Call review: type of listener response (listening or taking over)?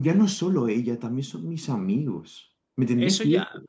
taking over